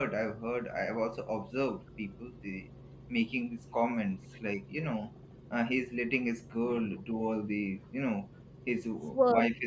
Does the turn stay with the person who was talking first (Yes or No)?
Yes